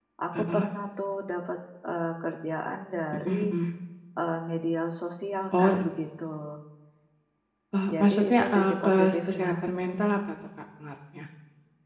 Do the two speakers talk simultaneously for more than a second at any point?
Yes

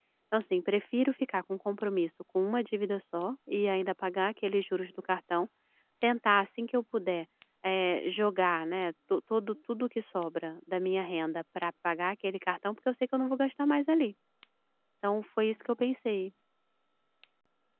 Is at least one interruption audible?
No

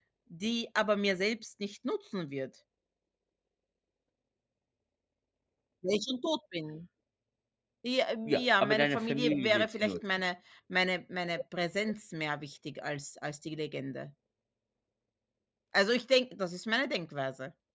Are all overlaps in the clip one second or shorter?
No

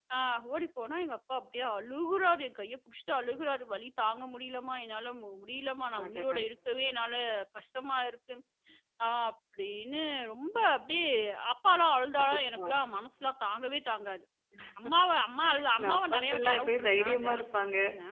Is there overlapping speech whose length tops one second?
Yes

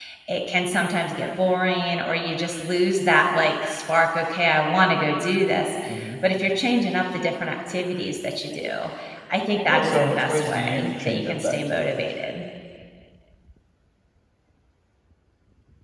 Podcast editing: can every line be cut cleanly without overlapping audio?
No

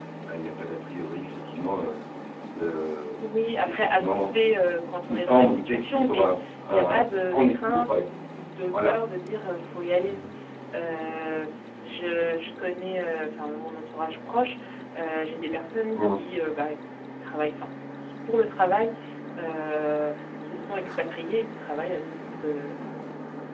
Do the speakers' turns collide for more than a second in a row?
Yes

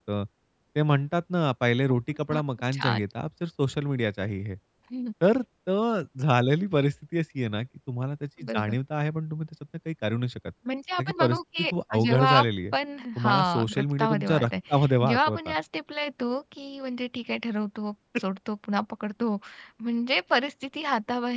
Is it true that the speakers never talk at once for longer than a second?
No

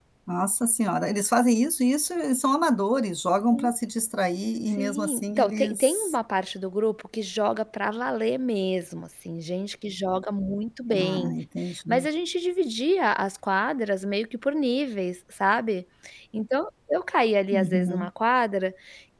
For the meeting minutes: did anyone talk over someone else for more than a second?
Yes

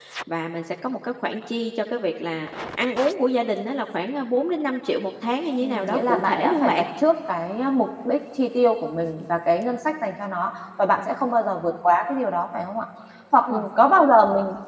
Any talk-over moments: Yes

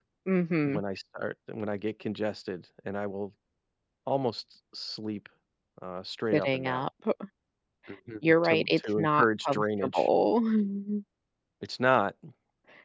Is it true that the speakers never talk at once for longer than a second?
No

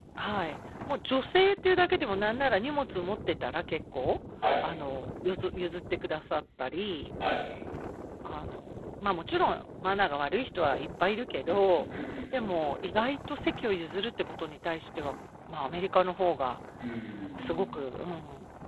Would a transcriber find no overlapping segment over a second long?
Yes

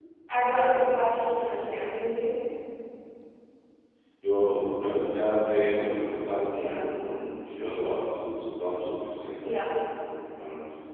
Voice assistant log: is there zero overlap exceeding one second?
Yes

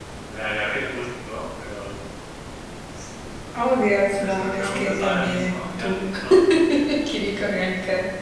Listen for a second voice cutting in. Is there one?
Yes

